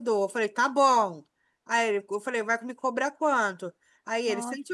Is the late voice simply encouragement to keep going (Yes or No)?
Yes